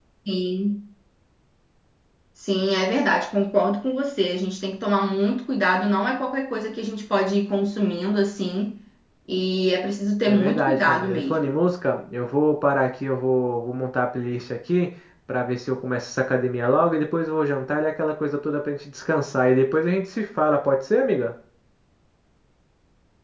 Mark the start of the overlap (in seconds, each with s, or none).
10.3 s